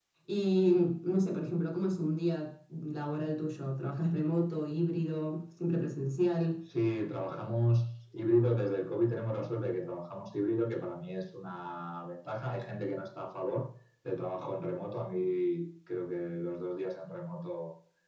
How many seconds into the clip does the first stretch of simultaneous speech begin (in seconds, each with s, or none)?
none